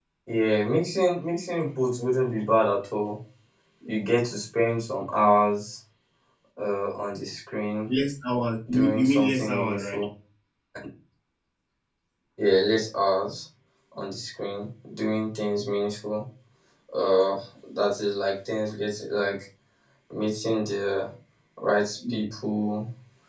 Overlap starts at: 9 s

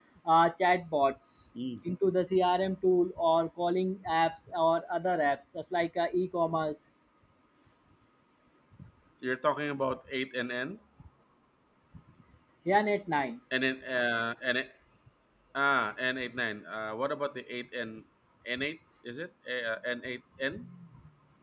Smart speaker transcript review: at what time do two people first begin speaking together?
none

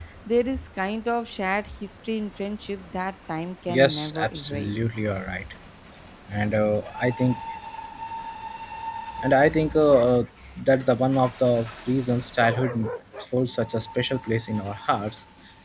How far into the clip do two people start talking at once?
4 s

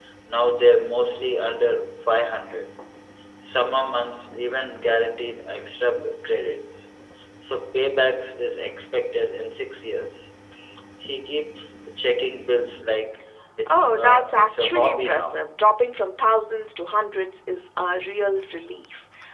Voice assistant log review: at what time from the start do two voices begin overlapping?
14 s

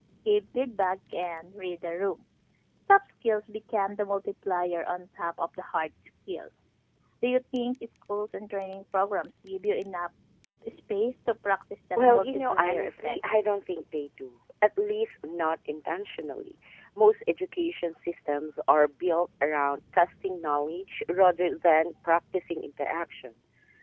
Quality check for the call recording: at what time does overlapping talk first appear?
12 s

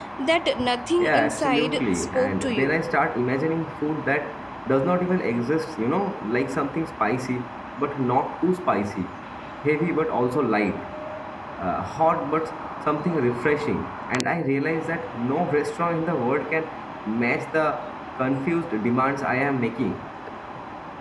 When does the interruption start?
1 s

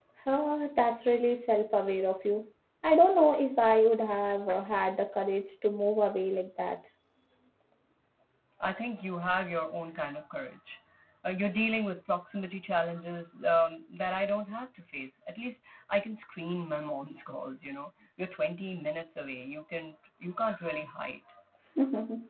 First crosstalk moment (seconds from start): none

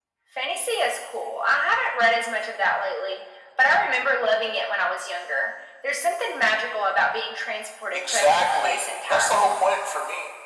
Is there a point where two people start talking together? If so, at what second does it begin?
8 s

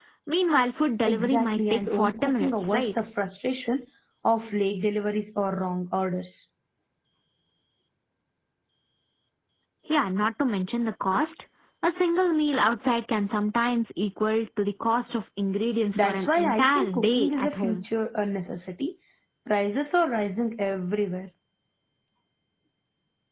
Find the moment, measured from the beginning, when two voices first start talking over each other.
1 s

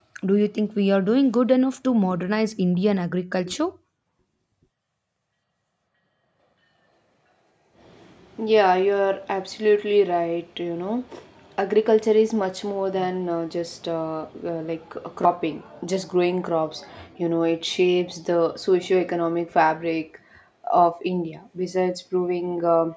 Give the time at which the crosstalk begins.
none

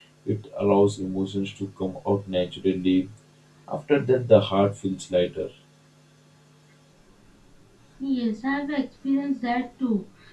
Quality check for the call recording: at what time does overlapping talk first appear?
none

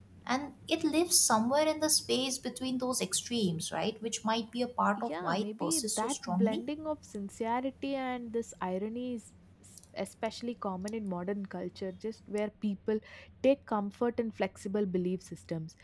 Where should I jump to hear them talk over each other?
5 s

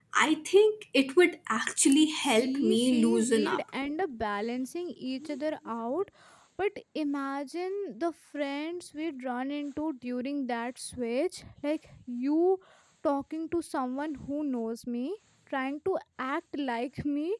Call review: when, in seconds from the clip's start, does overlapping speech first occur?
2 s

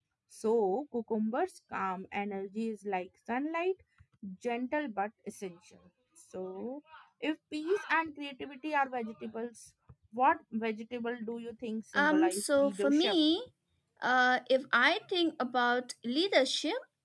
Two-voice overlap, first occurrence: 12 s

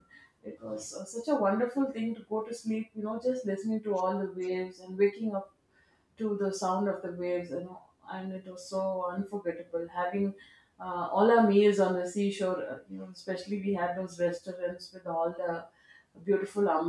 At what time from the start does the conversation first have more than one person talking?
none

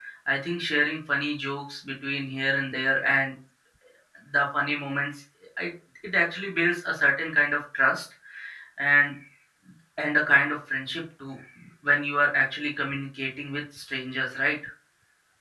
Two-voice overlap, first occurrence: none

